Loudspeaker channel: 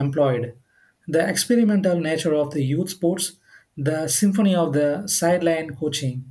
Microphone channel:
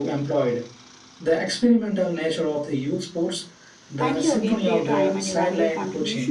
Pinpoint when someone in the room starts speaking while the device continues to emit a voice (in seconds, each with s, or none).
4.0 s